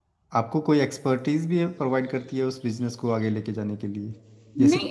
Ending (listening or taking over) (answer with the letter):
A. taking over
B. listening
A